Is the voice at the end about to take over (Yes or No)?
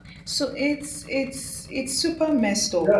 Yes